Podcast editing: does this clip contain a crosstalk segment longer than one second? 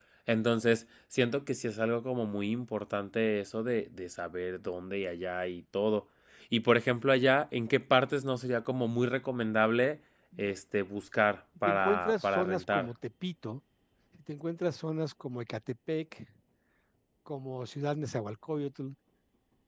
Yes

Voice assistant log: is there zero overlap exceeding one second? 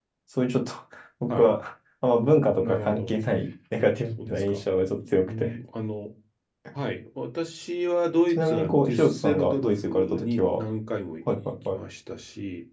No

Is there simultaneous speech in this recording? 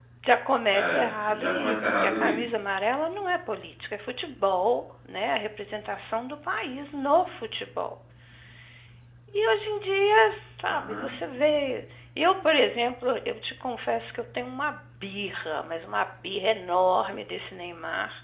Yes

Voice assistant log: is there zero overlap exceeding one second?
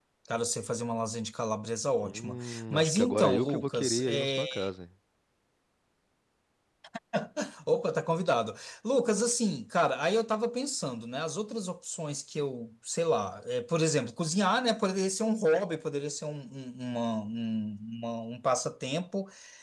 No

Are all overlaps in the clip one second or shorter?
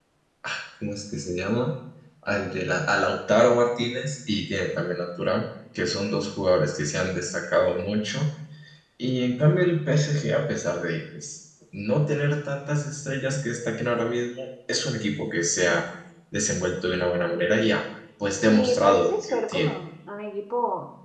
No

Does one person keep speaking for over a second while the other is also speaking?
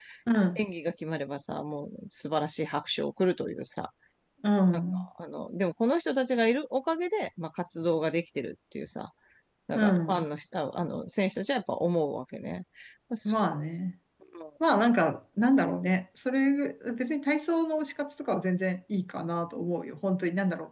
No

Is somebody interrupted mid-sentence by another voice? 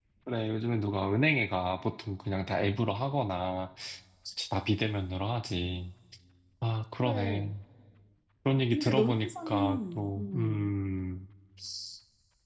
Yes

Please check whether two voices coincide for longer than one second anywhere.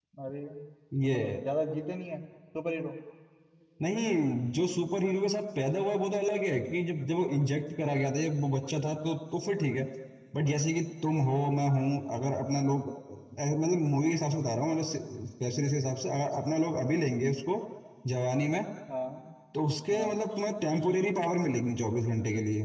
No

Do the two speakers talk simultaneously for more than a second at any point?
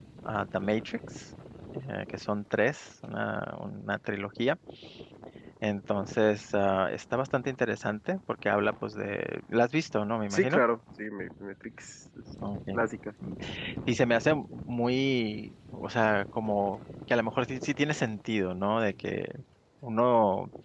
No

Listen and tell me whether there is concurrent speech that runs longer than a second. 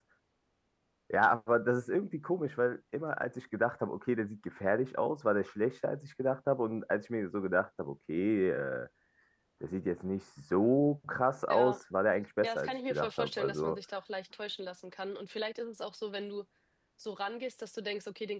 Yes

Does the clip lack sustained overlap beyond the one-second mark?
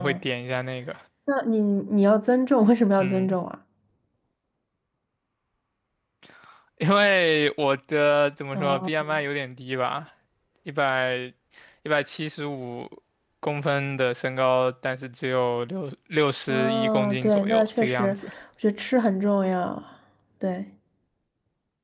No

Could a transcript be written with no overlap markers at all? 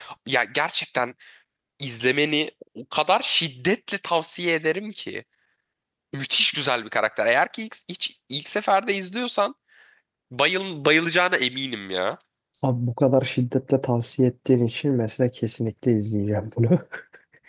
Yes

